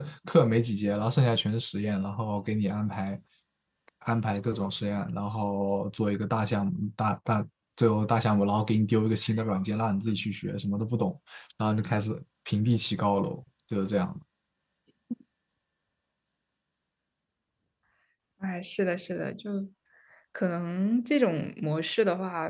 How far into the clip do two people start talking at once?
none

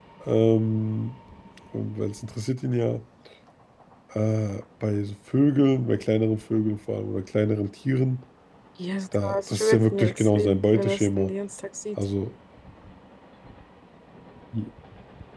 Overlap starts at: 9 s

